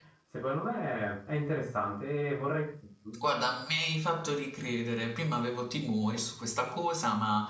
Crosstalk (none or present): none